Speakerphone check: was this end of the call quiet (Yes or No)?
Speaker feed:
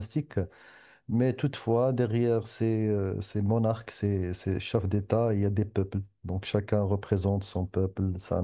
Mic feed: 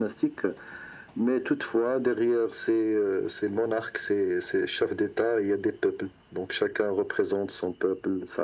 Yes